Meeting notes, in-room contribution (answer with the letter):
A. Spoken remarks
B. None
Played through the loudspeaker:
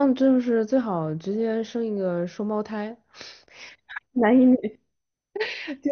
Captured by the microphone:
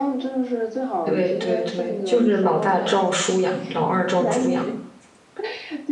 A